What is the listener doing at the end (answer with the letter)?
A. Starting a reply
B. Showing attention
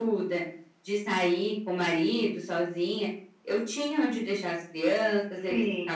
B